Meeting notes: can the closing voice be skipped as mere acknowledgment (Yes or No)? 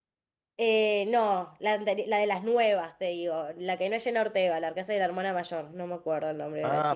No